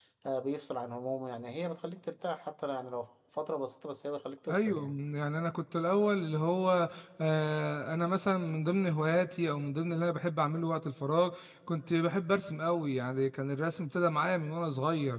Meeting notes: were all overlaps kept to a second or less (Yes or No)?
Yes